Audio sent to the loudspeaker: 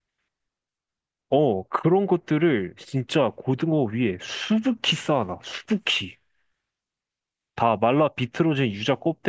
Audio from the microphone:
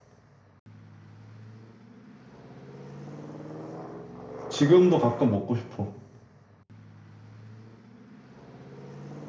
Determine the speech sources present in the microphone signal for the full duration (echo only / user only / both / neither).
user only